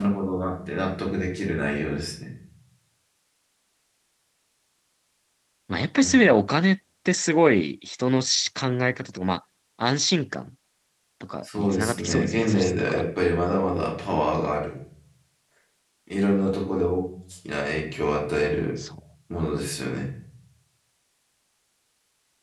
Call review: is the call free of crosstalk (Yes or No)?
No